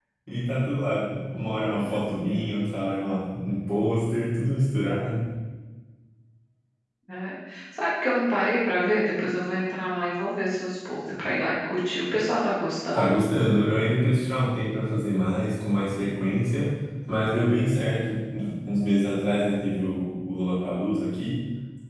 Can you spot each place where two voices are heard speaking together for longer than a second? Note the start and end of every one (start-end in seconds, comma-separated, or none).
none